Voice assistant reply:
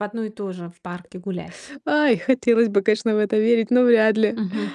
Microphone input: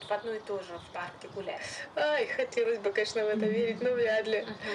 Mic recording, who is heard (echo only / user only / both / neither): both